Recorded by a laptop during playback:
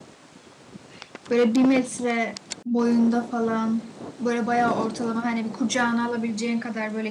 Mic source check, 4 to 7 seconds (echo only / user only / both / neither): user only